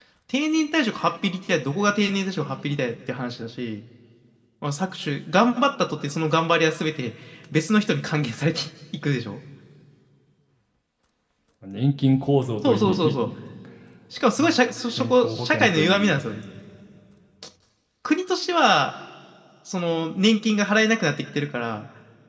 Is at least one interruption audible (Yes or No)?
Yes